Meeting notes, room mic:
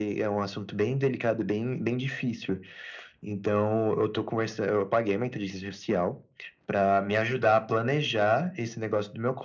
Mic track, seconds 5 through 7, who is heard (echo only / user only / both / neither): echo only